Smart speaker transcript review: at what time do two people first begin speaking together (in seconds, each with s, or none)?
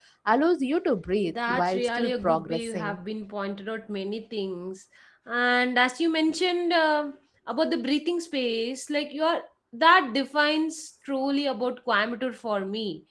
1.3 s